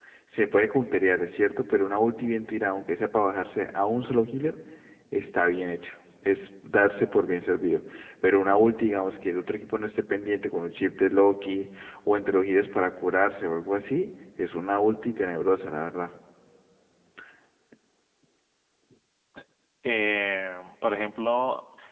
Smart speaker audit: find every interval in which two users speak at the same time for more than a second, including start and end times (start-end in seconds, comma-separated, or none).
none